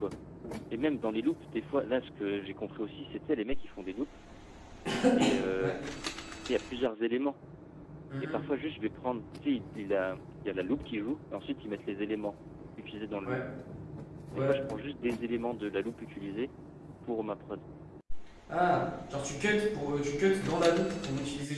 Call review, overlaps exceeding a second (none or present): none